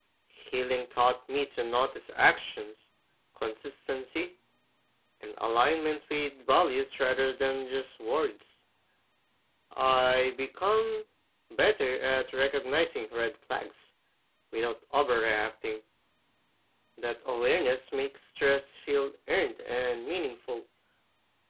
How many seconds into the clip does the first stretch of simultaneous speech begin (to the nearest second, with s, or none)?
none